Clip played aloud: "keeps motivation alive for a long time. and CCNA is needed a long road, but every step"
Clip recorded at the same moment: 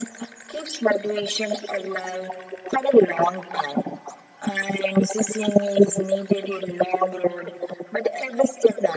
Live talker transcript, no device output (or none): none